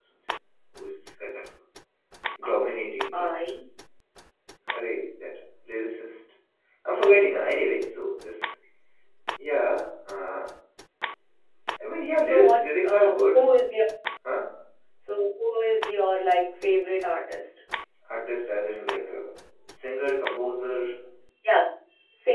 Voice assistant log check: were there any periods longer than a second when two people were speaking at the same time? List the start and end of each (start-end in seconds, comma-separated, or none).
12.2-13.6